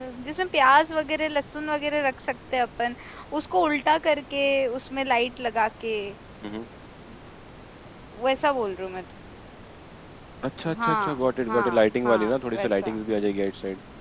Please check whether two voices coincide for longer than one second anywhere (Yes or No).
Yes